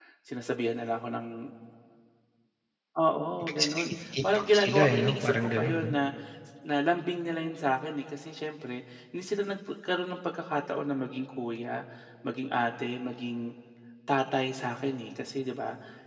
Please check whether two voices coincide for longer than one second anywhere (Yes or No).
Yes